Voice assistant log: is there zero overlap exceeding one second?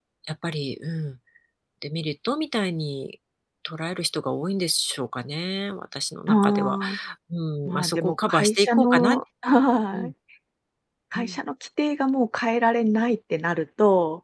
No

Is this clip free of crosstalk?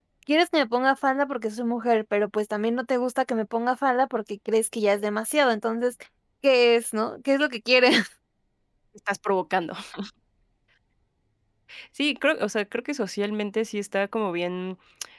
Yes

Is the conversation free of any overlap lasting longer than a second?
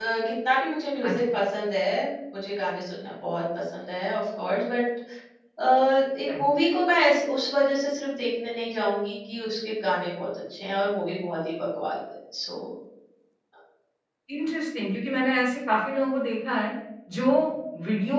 Yes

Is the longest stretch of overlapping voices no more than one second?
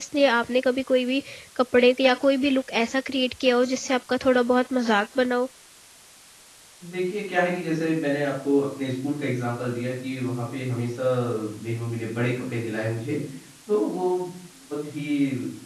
Yes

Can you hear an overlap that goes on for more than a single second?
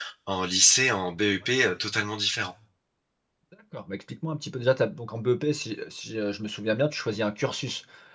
No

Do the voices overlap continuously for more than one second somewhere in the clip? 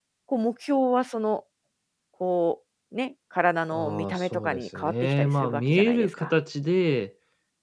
Yes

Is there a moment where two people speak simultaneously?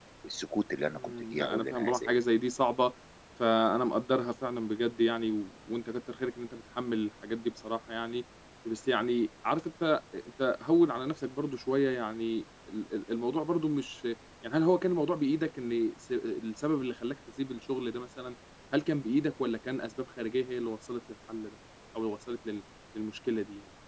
Yes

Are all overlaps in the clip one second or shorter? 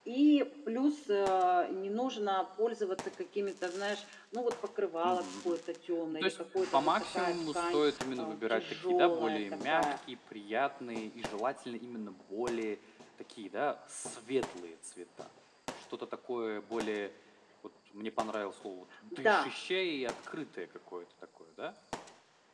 No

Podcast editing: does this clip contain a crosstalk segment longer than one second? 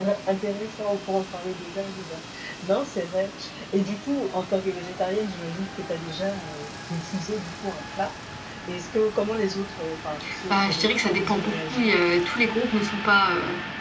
Yes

